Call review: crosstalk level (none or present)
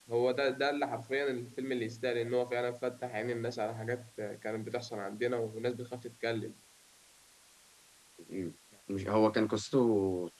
none